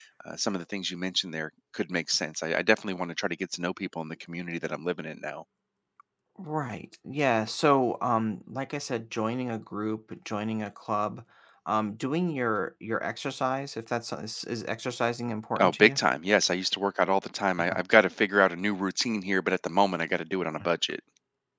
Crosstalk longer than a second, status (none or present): none